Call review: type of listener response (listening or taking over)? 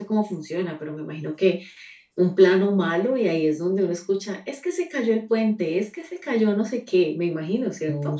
taking over